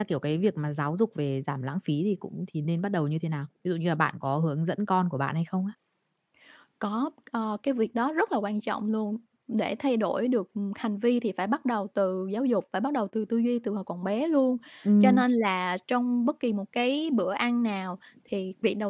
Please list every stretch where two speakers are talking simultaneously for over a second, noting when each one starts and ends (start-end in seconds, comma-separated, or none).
none